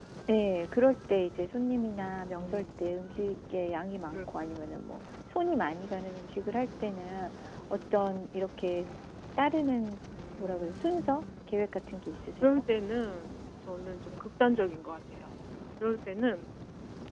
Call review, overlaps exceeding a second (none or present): present